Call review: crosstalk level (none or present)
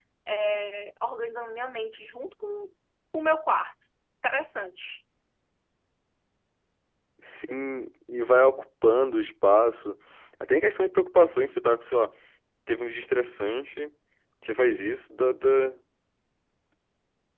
none